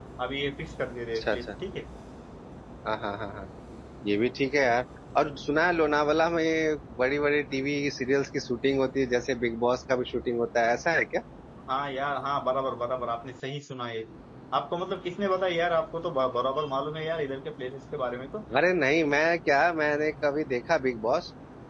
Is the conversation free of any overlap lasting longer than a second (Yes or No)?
Yes